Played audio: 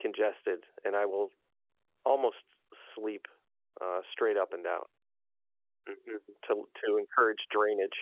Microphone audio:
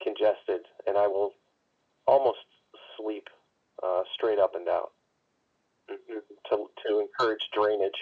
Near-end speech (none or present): none